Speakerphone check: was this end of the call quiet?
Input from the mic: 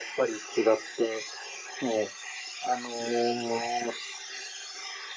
Yes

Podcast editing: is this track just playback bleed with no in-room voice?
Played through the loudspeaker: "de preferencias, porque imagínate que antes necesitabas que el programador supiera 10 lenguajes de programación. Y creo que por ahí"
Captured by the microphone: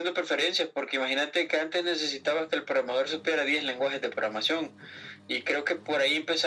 Yes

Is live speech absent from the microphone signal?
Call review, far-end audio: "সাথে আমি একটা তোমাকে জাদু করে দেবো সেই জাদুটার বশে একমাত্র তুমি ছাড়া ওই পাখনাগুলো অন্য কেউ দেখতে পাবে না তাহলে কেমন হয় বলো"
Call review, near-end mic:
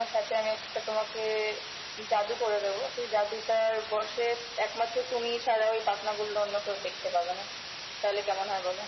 Yes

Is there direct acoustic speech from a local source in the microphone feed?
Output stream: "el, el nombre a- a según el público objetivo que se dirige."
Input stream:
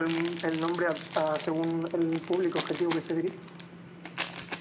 No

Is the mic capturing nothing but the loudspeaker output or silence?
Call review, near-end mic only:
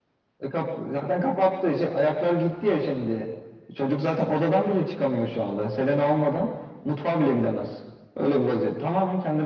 Yes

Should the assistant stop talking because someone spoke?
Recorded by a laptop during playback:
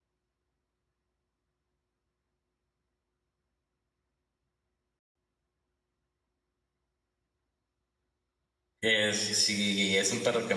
Yes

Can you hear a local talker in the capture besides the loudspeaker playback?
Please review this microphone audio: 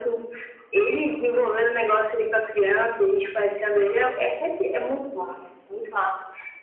No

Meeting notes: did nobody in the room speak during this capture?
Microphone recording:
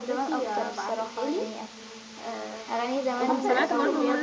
No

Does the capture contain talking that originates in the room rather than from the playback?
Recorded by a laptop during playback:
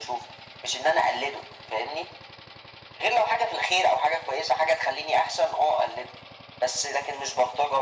No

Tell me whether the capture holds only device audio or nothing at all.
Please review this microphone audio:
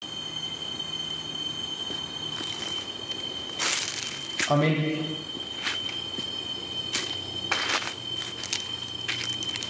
No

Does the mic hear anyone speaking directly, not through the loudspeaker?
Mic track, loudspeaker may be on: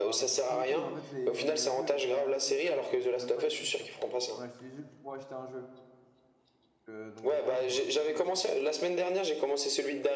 Yes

